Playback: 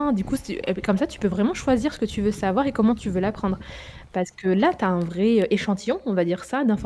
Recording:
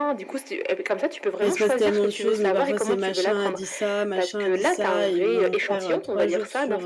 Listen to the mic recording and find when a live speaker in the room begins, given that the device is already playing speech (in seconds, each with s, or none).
1.4 s